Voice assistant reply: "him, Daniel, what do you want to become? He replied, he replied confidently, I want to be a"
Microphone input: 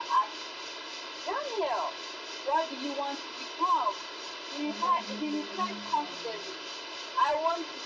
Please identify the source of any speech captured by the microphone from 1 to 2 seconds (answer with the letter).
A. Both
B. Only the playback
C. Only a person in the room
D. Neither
B